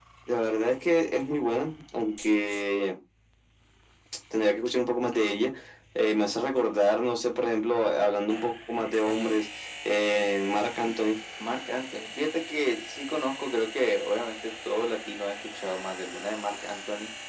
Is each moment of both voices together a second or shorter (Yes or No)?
Yes